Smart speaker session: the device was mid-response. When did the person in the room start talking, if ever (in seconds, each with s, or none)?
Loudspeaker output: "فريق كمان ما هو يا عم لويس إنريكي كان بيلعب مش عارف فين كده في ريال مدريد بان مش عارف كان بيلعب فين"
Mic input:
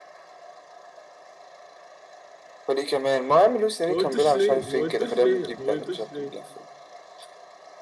3.9 s